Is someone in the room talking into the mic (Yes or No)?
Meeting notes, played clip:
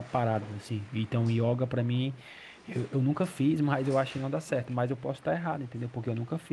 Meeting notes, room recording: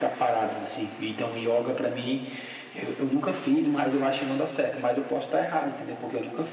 No